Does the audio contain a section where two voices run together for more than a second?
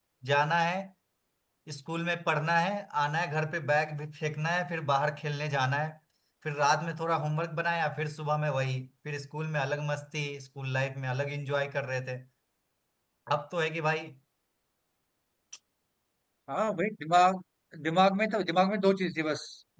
No

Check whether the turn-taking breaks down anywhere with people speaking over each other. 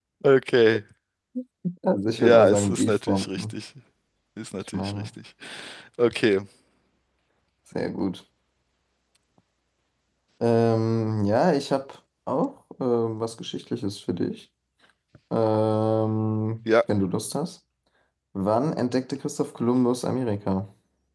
Yes, from 2.2 s

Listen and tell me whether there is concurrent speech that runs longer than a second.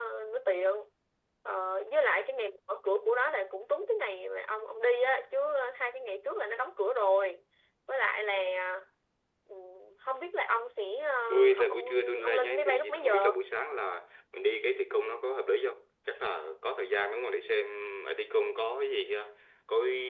Yes, from 11.6 s

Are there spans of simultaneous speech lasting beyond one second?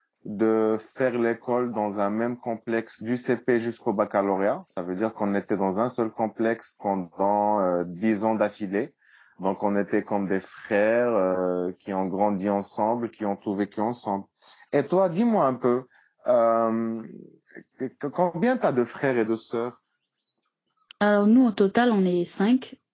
No

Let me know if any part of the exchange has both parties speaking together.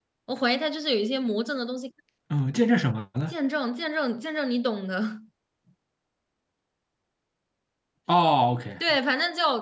No

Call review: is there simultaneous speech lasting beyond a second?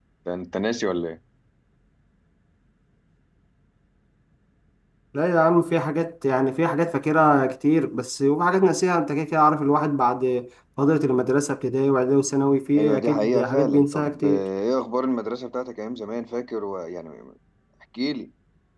Yes, from 12.8 s

